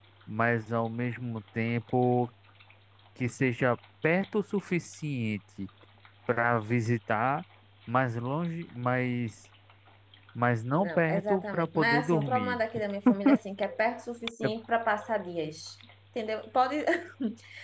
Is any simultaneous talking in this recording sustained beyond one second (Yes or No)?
Yes